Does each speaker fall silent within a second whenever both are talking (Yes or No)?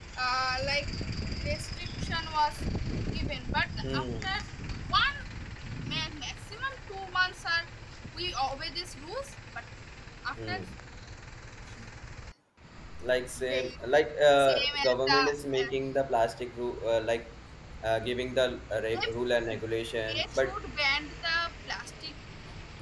No